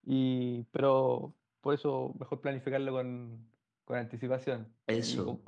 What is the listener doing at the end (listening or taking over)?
listening